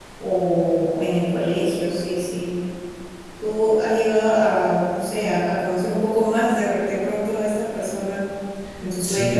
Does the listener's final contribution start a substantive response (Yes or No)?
Yes